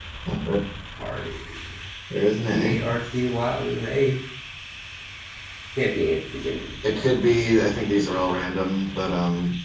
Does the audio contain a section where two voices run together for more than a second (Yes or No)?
Yes